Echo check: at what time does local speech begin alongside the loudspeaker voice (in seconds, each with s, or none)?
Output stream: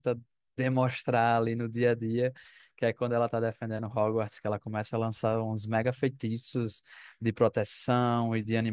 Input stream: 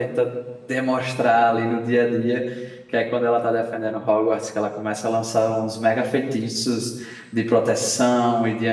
none